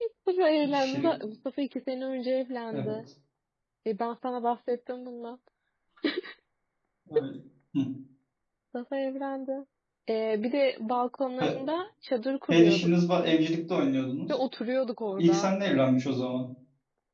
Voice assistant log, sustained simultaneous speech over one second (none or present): none